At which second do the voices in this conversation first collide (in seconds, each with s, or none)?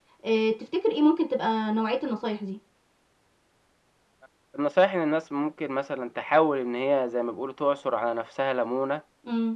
none